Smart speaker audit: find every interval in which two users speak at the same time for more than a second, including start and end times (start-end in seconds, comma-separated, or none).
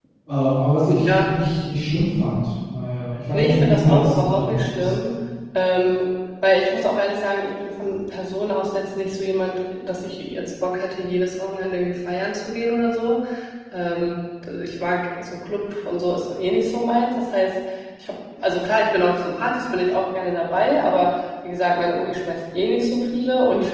3.3-4.9